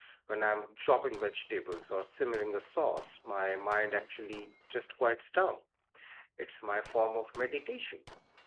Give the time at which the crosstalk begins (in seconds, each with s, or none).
none